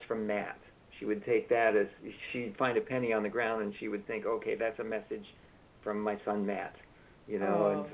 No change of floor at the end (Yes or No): No